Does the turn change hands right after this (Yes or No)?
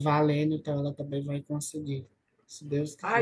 Yes